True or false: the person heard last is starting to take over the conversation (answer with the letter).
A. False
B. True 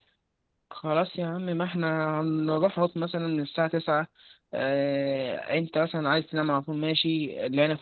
A